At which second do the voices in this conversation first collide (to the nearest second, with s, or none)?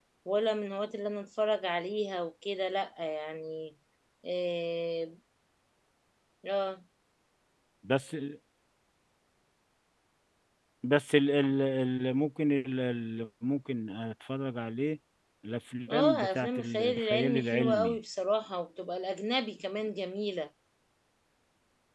16 s